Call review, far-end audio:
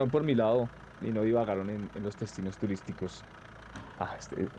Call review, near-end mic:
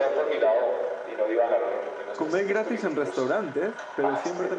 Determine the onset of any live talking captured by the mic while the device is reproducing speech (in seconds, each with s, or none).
2.2 s